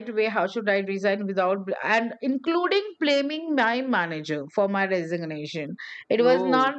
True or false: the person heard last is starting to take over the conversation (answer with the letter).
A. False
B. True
A